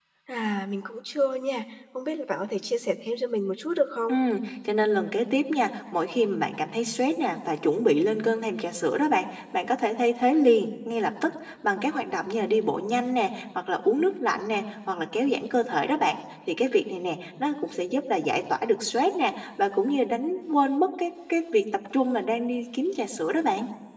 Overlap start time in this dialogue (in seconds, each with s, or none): none